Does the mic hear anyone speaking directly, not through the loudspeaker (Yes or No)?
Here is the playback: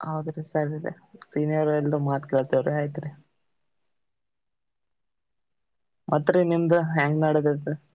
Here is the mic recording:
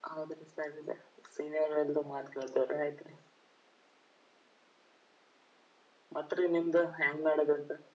No